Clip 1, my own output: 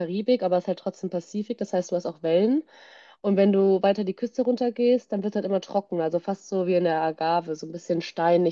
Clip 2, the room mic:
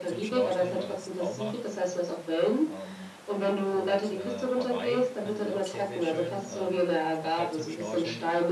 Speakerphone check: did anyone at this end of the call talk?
Yes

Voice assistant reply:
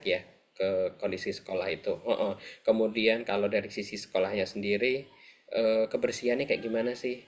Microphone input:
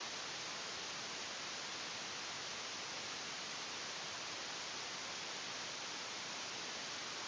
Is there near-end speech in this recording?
No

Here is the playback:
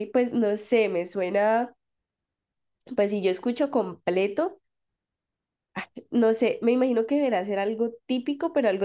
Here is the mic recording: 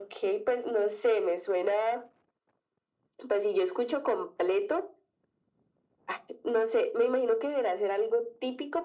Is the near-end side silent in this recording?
Yes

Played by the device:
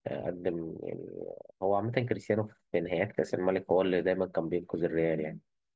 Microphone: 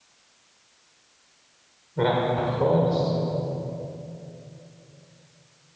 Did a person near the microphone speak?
Yes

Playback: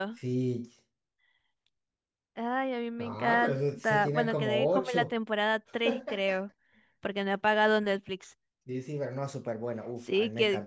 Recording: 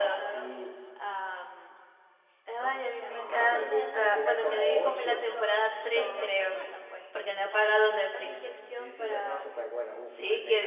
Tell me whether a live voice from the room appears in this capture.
Yes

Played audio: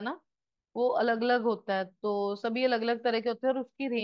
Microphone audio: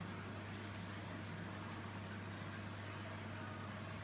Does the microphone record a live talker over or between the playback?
No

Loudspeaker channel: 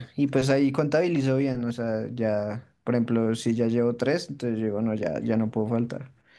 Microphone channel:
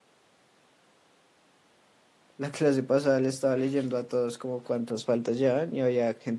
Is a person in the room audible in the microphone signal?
Yes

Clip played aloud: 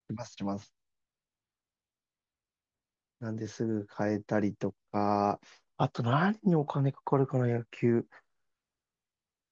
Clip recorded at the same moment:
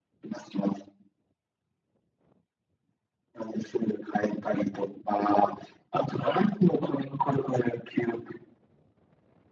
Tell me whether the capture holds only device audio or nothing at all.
Yes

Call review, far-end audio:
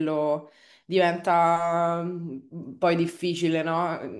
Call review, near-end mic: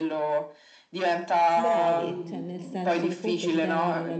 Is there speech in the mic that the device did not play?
Yes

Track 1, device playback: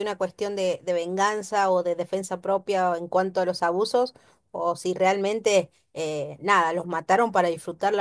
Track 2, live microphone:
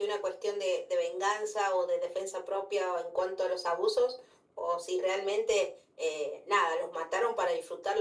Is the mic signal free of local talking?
Yes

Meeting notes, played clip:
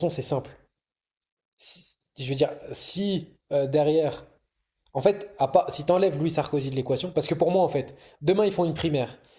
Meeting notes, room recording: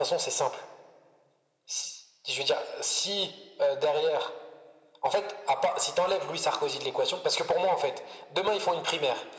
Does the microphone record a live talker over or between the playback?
No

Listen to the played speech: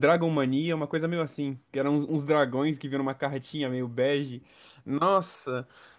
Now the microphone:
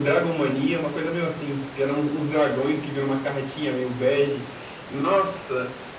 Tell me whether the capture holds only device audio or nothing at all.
Yes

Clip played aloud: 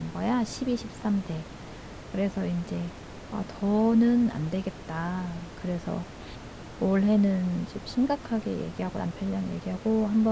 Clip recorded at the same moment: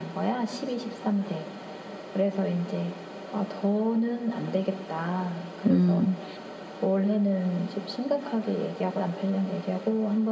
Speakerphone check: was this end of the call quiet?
No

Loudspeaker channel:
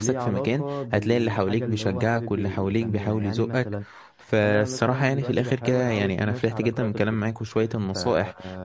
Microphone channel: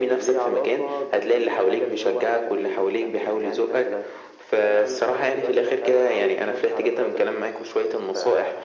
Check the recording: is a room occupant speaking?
No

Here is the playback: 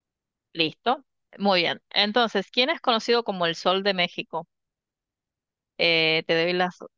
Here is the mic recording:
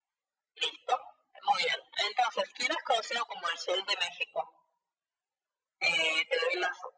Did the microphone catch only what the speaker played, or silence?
Yes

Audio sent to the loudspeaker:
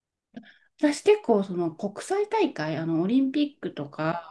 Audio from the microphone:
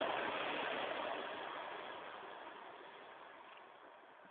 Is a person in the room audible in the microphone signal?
No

